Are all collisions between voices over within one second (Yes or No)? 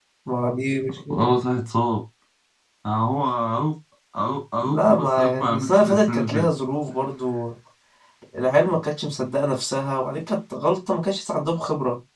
No